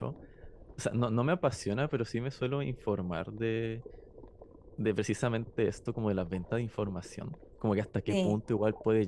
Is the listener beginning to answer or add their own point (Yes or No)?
No